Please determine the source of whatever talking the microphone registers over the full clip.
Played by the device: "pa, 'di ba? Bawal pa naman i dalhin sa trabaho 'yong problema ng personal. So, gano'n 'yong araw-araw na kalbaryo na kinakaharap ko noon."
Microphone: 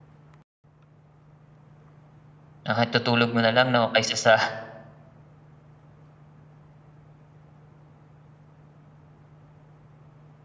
user only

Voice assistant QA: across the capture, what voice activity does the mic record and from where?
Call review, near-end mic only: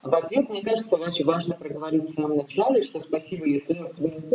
echo only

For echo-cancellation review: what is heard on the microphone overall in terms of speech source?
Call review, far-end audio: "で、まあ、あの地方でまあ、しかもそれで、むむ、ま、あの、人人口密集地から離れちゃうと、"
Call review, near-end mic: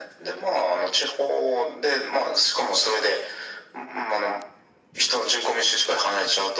echo only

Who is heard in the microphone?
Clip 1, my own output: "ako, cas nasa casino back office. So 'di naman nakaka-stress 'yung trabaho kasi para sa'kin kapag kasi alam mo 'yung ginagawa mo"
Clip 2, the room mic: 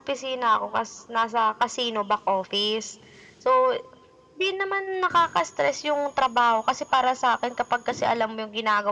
echo only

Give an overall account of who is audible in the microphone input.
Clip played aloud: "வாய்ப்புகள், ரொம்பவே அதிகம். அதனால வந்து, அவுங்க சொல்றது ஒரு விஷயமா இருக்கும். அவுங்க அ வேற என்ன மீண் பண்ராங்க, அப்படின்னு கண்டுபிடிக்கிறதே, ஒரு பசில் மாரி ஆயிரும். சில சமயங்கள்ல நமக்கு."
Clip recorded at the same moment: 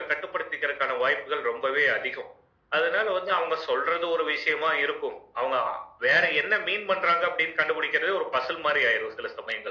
echo only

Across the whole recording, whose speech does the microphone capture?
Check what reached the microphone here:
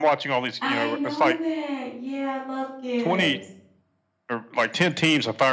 both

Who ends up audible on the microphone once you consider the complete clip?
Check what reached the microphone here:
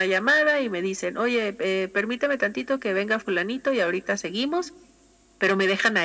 echo only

